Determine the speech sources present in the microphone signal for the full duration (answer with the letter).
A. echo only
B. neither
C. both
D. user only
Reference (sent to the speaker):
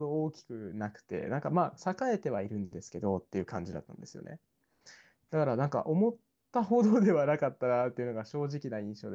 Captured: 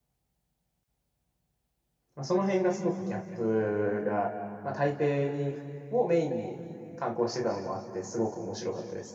D